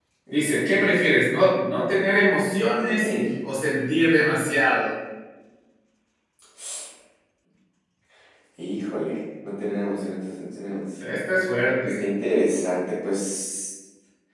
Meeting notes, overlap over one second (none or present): none